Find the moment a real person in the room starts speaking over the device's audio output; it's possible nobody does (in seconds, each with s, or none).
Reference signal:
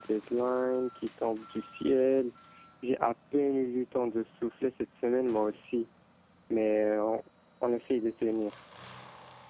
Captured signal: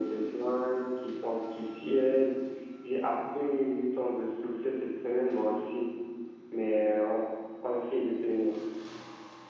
none